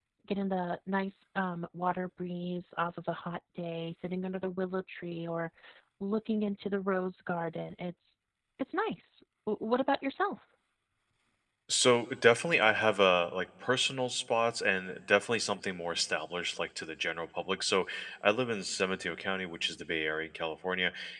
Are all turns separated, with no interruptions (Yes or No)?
Yes